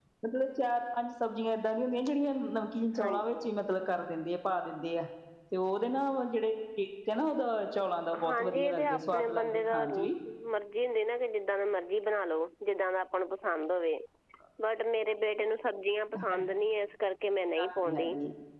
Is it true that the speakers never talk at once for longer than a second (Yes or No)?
No